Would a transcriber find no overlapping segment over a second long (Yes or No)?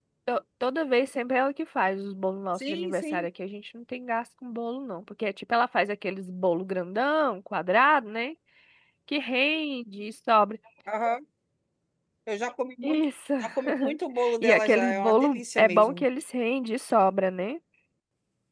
No